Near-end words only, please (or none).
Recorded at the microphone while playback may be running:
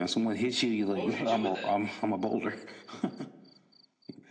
What would you do with that?